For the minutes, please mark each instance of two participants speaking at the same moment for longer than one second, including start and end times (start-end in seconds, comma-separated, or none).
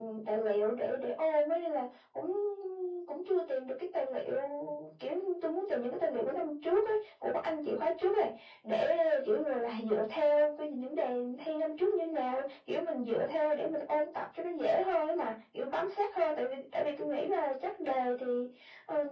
none